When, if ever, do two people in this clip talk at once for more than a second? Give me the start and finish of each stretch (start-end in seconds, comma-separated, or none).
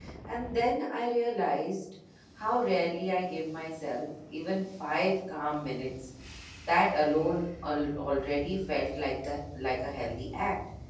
none